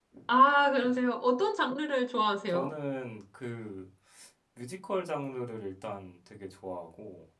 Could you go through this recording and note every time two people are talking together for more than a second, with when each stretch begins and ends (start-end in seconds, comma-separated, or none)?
none